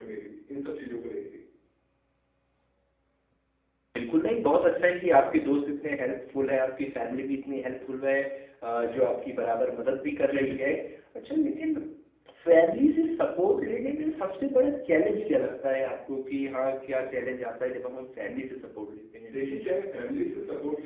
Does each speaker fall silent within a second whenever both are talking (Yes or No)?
Yes